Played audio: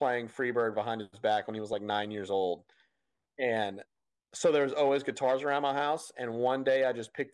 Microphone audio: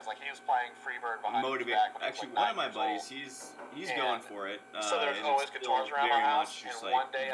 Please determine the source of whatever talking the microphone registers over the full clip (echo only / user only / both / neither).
both